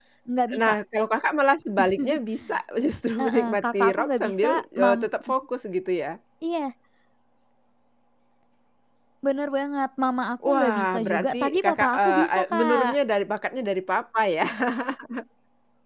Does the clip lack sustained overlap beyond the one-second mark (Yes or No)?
No